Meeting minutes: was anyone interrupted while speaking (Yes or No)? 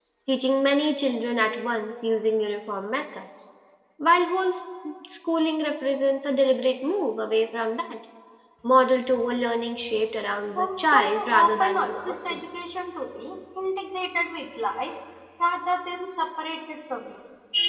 Yes